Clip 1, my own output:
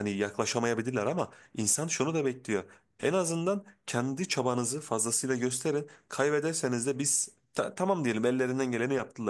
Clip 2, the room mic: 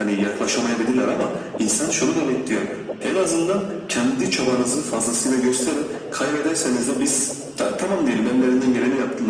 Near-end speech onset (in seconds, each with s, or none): none